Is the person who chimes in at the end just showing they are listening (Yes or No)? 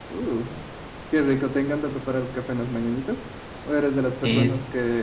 Yes